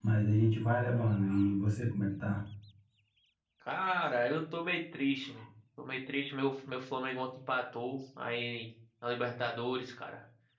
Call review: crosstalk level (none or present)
none